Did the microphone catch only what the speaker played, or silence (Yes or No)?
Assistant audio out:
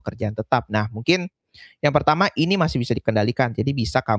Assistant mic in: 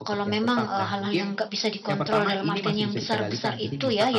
No